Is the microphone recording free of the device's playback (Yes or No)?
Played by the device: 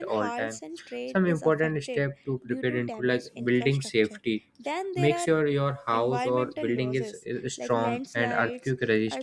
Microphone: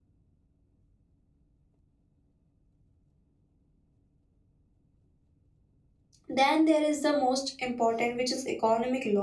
Yes